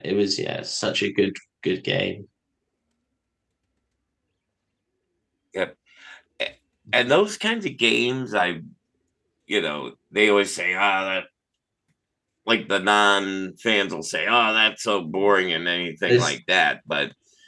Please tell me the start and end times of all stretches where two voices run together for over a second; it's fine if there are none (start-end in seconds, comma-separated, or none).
none